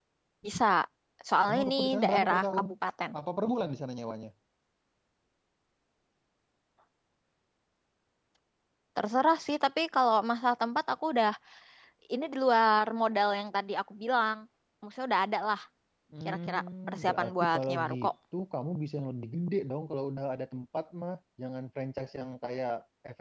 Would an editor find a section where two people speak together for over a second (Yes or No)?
Yes